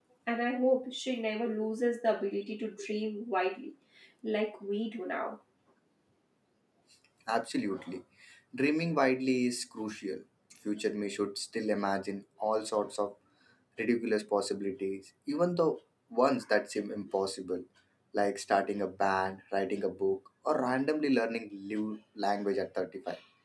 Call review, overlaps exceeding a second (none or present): none